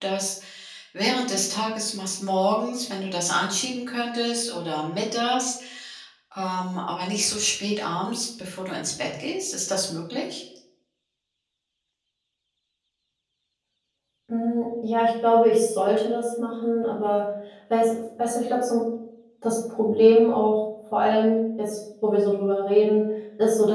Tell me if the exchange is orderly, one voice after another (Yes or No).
Yes